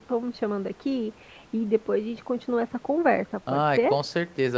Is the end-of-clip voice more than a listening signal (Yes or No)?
Yes